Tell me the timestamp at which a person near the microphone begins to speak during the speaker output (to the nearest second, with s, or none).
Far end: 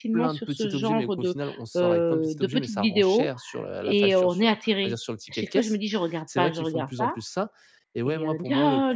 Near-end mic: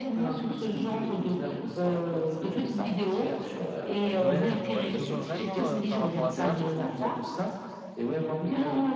4 s